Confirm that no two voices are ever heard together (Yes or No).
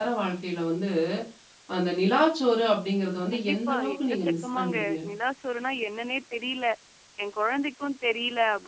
No